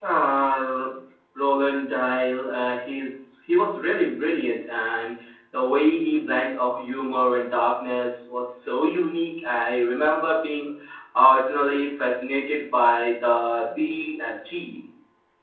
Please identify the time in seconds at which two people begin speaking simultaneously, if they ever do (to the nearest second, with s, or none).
none